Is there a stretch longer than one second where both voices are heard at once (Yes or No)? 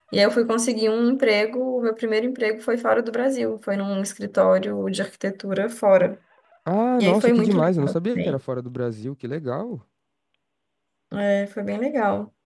Yes